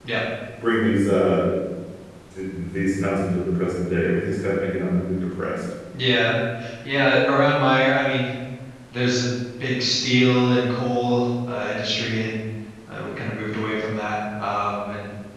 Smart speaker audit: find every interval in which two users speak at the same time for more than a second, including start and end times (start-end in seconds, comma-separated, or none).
none